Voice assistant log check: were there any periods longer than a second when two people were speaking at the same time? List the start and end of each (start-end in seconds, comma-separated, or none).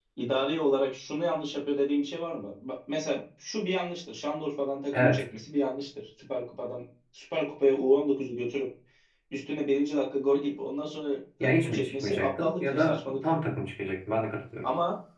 11.4-13.2